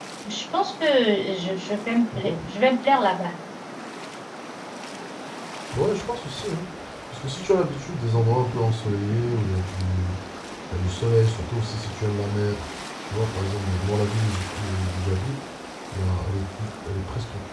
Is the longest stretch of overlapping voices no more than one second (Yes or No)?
Yes